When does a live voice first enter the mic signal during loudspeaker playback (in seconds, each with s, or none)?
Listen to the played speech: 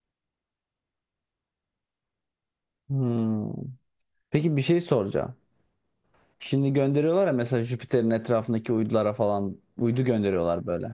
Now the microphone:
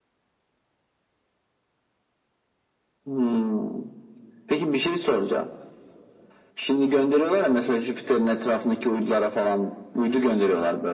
none